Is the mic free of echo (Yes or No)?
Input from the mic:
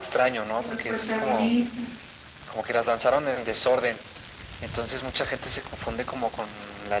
No